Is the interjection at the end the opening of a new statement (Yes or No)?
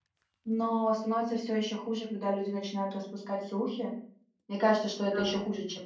No